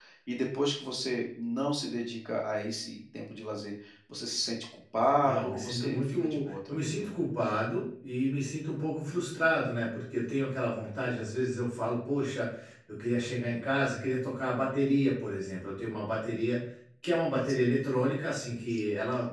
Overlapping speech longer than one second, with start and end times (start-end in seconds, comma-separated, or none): 5.2-7.1